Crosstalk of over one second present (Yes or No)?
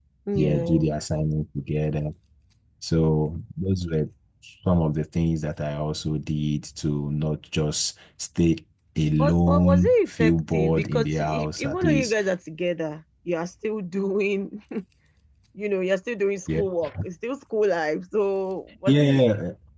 Yes